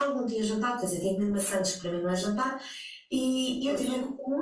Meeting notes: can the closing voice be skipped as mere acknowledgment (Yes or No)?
Yes